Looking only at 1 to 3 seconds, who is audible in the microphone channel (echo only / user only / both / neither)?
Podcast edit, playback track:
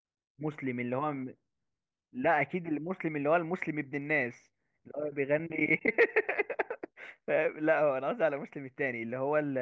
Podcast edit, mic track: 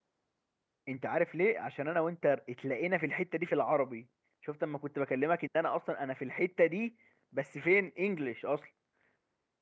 user only